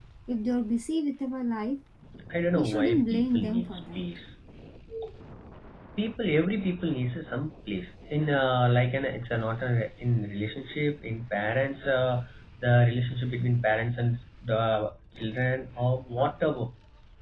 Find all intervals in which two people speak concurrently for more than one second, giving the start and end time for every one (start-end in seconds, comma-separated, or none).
2.5-4.0